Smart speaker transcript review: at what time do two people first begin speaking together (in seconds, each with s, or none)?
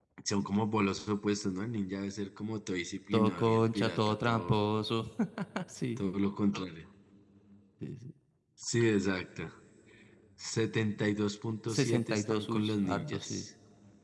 3.1 s